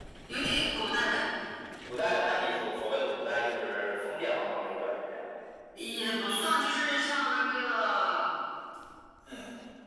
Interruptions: none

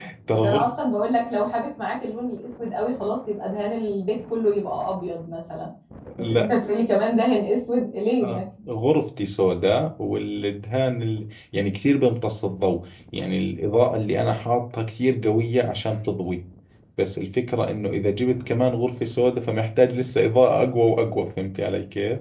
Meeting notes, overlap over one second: none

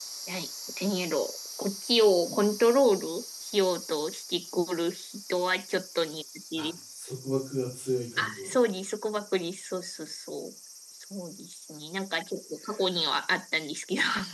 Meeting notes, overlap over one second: none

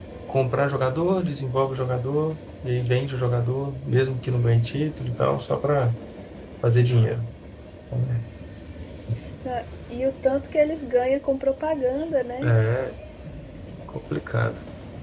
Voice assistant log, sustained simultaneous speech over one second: none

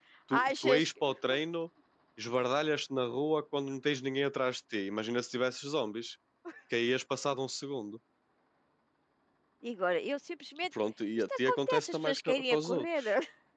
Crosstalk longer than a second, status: present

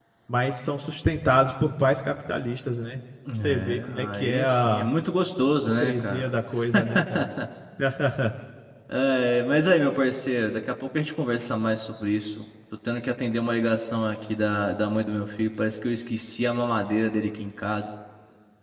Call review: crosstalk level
present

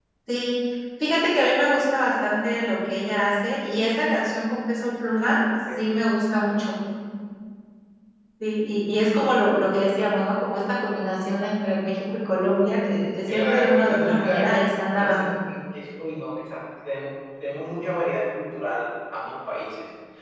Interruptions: present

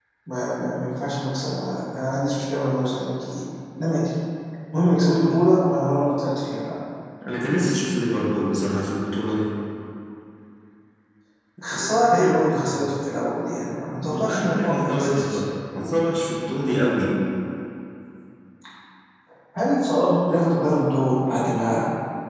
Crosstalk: present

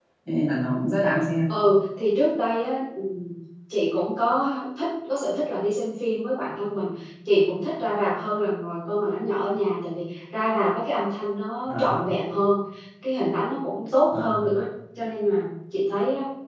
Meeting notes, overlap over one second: none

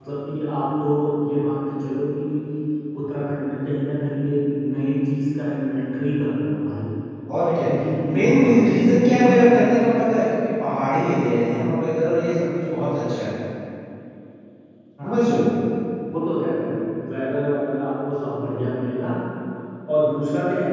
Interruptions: present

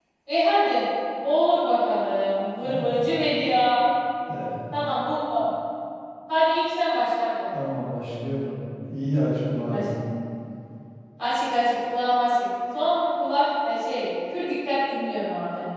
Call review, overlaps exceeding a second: none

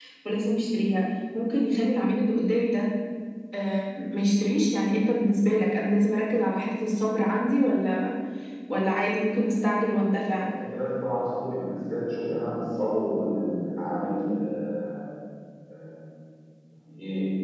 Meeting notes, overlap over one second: none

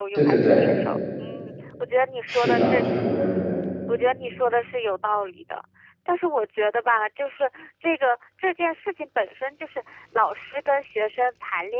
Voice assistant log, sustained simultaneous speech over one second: none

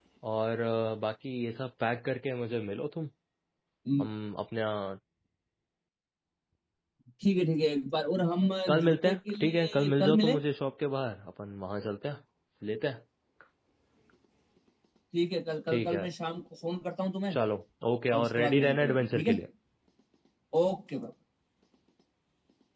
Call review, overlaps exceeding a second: present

